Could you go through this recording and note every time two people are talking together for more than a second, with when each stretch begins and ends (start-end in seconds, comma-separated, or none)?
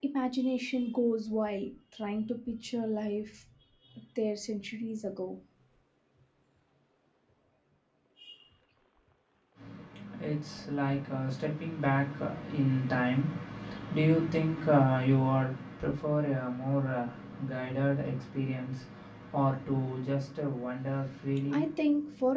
none